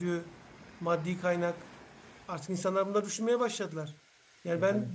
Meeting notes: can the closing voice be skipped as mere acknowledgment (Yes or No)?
Yes